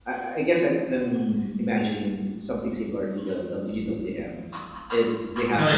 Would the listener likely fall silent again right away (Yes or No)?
Yes